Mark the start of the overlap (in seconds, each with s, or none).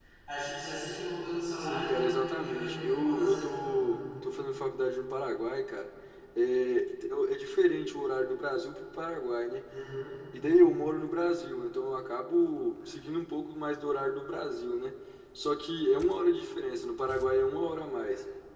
1.6 s